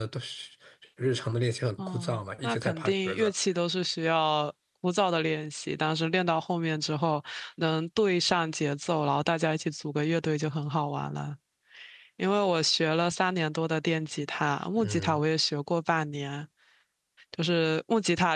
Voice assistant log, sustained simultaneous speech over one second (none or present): present